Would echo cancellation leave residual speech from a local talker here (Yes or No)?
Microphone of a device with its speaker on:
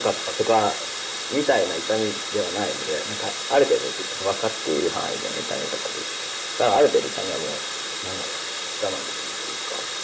No